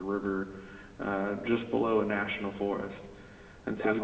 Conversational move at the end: listening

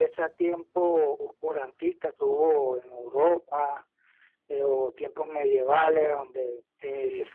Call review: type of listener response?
listening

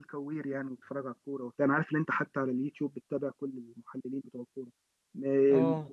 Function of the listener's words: listening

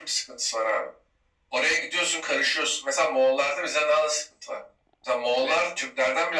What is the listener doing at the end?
listening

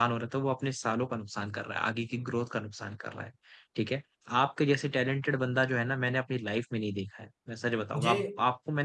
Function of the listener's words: listening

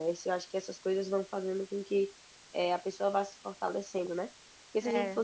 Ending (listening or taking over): listening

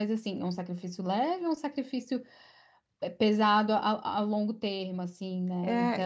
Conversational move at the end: taking over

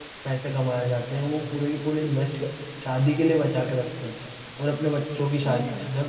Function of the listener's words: listening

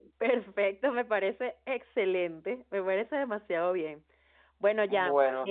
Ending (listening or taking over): listening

